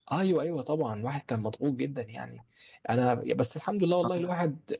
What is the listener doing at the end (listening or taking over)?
listening